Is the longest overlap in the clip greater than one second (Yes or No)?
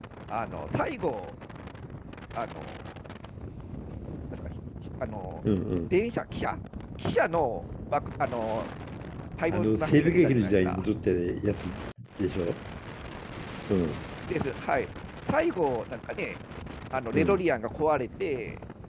Yes